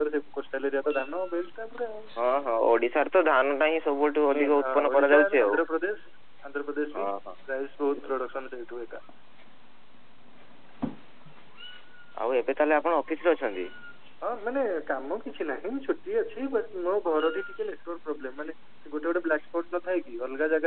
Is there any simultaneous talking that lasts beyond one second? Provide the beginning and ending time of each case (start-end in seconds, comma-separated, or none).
4.4-5.6